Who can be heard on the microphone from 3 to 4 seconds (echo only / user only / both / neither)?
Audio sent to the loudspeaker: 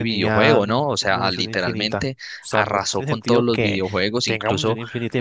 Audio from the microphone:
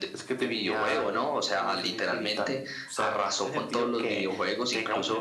echo only